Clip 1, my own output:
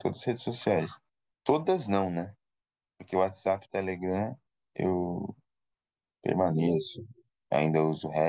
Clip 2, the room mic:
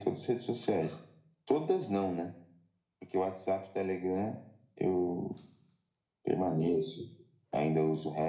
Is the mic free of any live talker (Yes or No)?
Yes